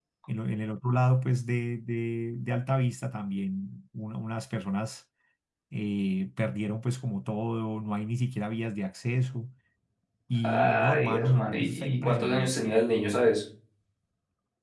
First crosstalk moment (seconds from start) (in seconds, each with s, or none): 10.4 s